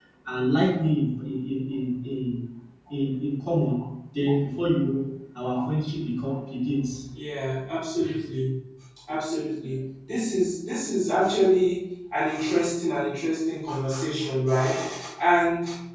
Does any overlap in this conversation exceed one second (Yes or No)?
No